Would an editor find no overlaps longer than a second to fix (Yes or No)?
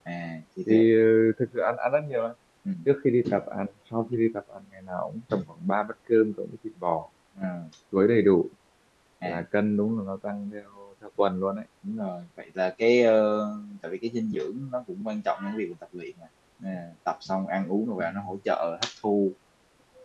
Yes